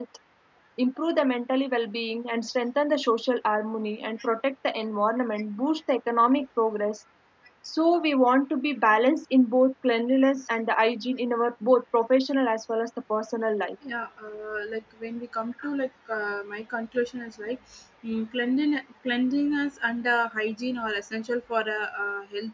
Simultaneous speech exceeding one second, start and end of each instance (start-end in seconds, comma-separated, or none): none